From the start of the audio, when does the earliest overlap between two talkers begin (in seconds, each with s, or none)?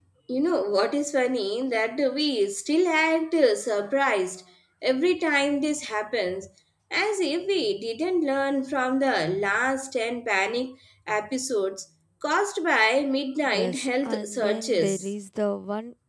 13.4 s